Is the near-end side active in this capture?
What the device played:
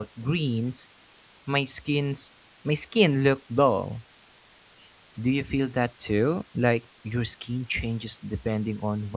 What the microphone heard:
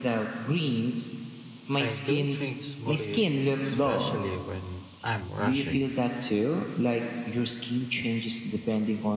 Yes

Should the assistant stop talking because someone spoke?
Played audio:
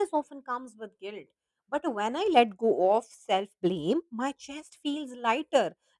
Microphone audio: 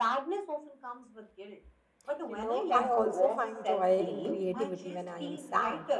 Yes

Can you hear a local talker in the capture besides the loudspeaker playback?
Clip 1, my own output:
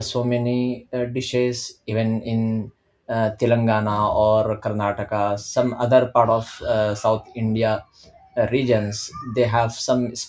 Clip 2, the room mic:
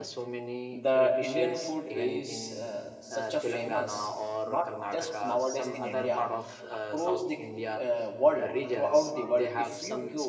Yes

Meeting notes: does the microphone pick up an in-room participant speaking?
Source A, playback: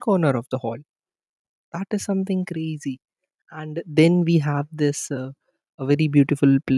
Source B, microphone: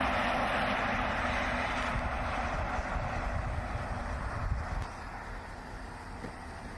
No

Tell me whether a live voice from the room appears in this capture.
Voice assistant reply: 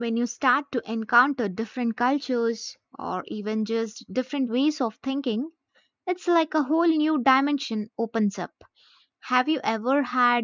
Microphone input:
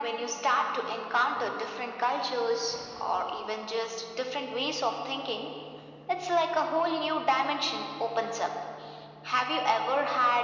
No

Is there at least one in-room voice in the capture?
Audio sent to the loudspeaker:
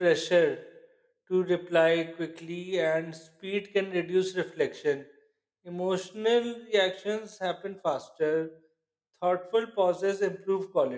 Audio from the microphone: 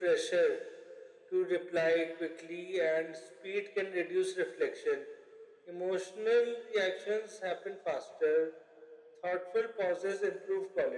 No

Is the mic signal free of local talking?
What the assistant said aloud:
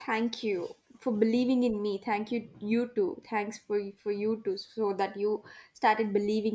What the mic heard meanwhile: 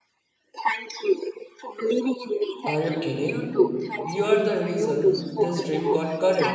No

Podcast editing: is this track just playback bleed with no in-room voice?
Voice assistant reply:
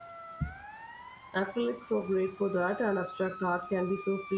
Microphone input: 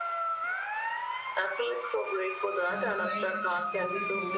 No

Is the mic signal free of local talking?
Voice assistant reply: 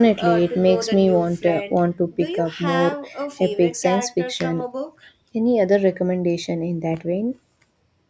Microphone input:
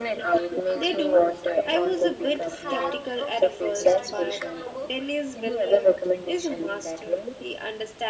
No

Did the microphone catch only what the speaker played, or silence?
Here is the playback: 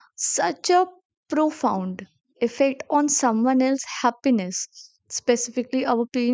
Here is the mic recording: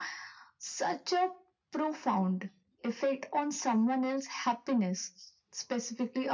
Yes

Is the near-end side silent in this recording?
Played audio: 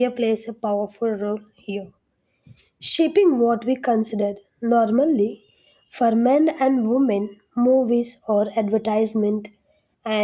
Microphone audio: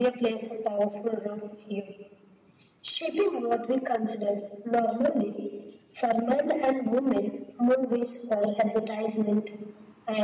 Yes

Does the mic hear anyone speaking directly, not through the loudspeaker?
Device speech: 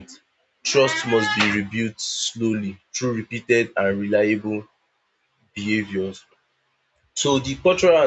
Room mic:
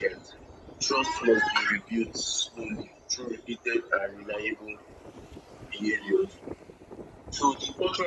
No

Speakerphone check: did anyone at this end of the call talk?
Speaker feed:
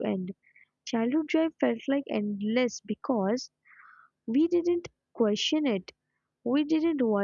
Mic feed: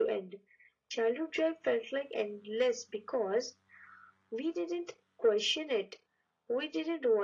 No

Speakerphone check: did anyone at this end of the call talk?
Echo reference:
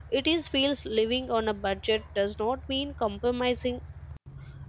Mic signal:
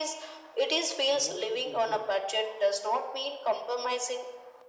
Yes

